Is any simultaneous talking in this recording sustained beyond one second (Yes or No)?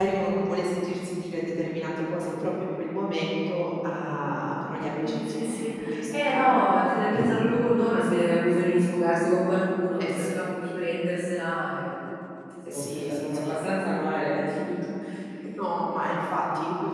Yes